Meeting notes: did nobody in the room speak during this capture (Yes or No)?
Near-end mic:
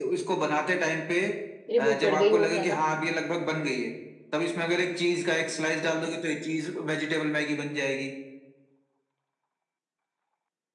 No